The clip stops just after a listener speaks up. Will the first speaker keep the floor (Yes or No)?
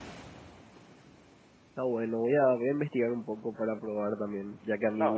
No